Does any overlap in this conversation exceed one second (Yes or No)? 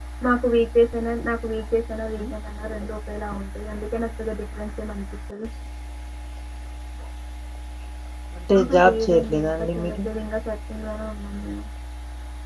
Yes